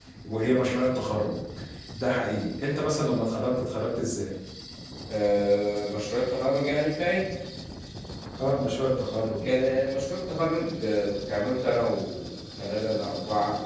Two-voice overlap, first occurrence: none

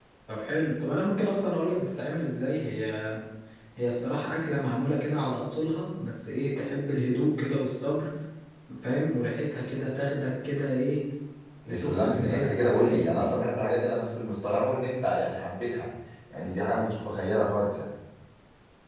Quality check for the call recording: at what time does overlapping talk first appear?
11.7 s

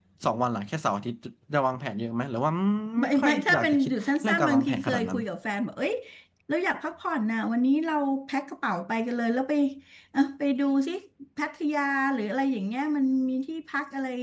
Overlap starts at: 3.0 s

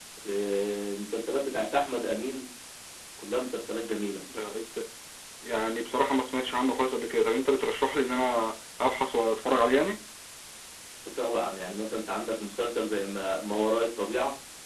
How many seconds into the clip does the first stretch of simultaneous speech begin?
none

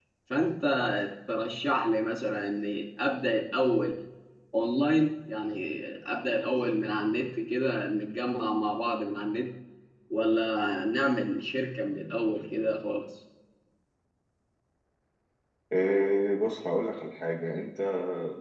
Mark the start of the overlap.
none

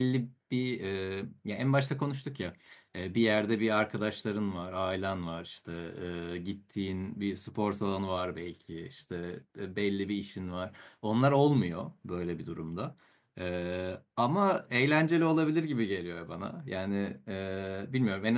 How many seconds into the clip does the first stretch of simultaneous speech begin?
none

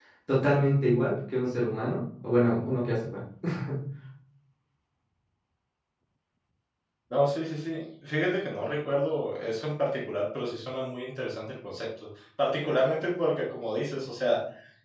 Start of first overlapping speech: none

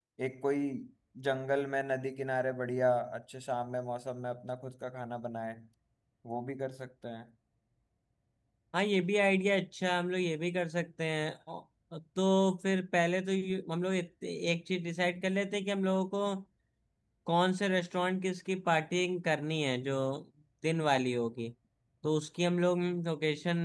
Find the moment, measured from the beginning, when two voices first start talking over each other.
none

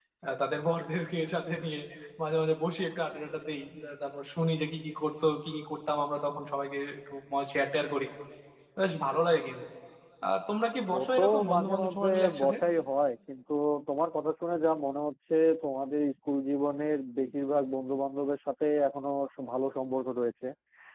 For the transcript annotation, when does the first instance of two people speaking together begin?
11.2 s

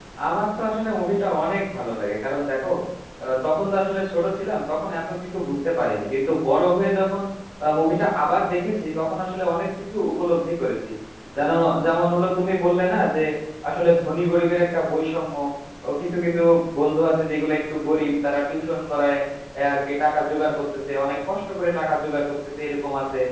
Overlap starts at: none

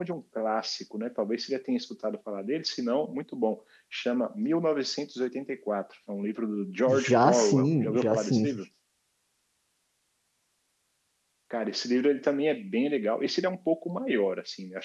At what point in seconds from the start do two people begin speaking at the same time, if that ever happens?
6.9 s

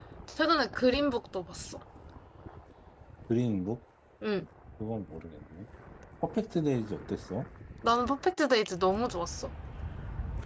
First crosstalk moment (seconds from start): none

